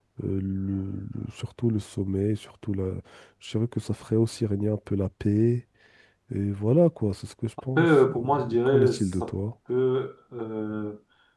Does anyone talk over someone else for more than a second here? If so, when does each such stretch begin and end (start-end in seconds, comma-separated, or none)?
7.8-9.3